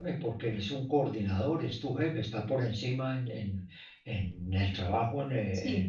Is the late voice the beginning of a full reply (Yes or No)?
No